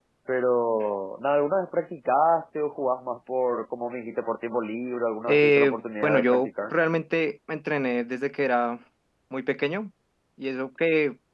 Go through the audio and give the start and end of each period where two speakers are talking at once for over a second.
5.3-6.7

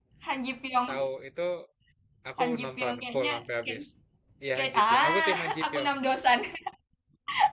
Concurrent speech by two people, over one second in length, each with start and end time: 2.4-3.8, 4.5-5.9

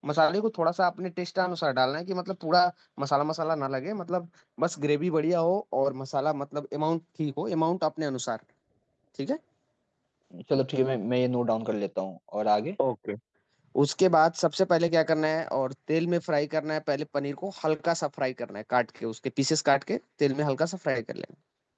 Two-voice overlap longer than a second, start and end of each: none

